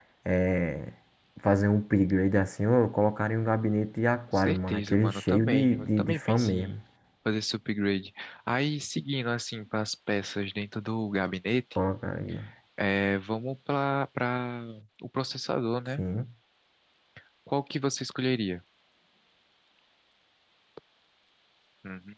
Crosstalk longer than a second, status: present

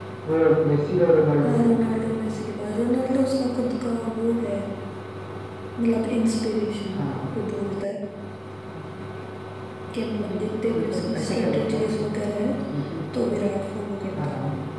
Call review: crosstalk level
present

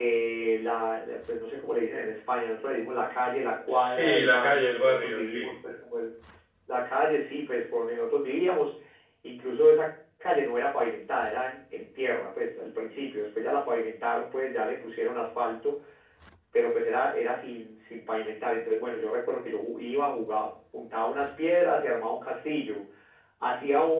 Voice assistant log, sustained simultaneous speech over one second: present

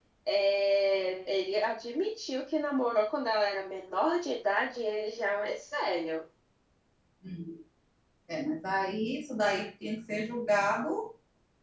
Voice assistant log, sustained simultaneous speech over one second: none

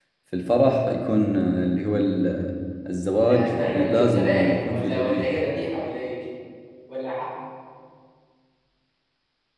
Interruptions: present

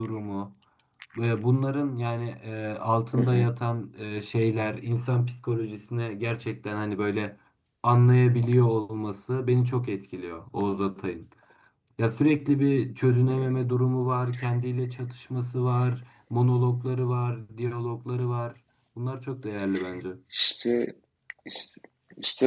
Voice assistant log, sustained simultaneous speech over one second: none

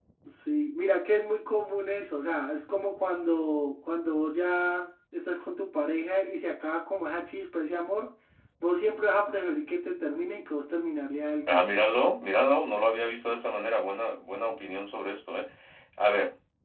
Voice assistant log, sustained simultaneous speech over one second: none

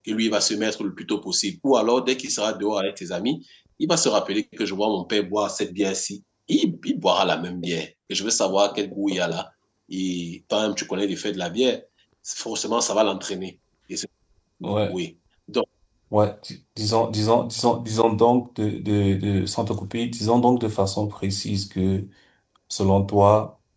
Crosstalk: none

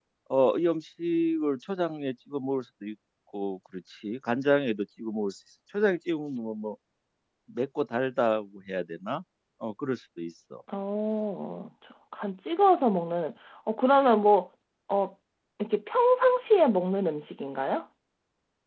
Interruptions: none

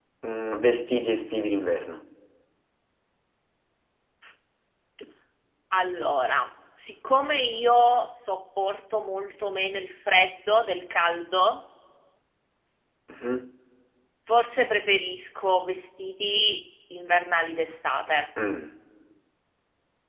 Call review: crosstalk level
none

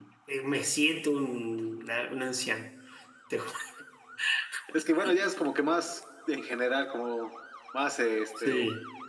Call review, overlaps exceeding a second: none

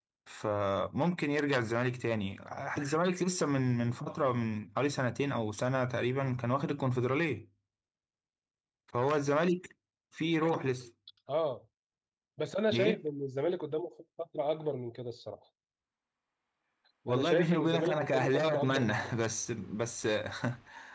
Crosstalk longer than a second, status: present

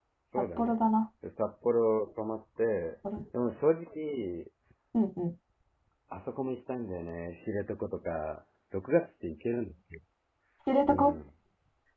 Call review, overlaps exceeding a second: none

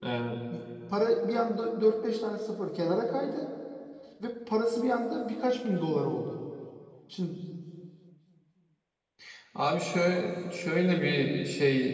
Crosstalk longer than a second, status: none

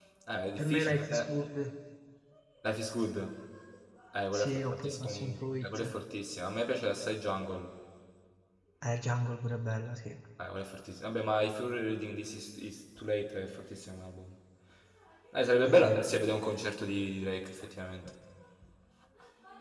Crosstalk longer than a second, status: present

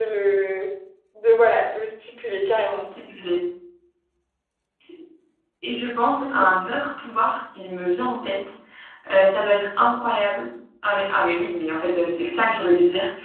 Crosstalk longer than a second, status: none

